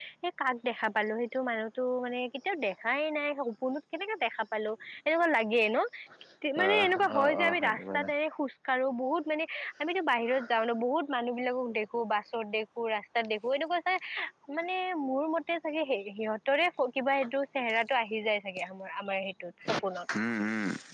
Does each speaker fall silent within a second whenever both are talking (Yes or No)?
No